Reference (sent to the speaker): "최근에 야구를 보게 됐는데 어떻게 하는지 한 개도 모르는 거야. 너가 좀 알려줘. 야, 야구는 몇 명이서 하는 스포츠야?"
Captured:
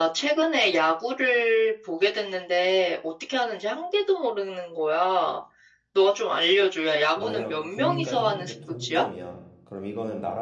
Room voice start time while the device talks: 7.1 s

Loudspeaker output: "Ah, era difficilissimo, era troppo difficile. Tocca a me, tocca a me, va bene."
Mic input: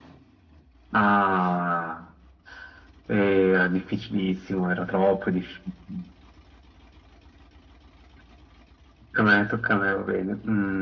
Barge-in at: none

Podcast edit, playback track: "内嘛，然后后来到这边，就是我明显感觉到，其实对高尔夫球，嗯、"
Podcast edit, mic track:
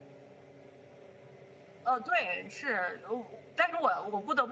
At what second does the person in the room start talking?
1.8 s

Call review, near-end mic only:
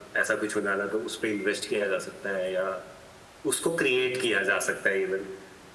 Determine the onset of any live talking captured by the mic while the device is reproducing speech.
none

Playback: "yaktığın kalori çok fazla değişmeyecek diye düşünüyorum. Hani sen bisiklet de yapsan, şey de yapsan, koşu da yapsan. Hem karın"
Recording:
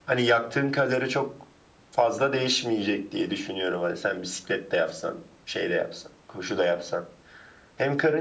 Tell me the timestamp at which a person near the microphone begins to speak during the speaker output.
none

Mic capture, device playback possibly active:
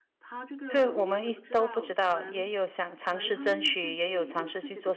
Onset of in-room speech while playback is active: 0.7 s

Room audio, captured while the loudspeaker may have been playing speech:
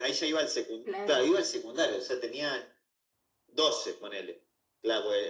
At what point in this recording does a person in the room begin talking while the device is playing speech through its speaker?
0.8 s

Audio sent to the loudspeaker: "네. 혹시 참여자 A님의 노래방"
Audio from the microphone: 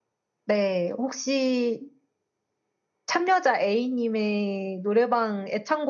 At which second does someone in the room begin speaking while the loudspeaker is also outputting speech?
none

